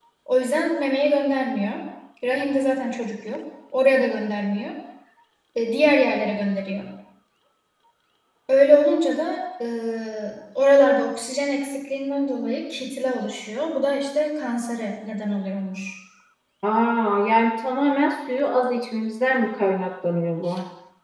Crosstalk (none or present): none